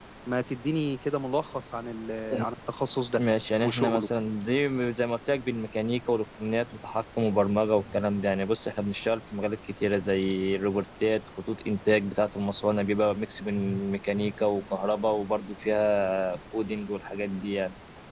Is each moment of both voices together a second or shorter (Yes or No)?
Yes